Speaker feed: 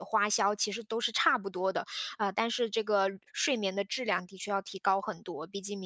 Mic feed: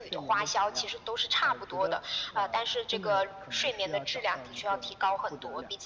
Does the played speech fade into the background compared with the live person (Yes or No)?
No